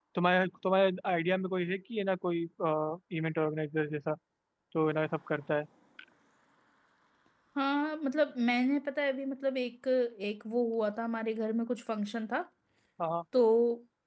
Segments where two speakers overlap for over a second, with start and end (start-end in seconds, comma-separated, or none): none